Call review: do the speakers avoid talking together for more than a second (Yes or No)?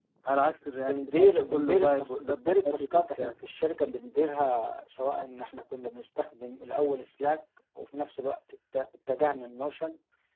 No